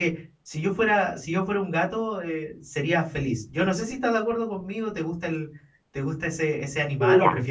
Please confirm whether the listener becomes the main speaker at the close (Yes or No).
Yes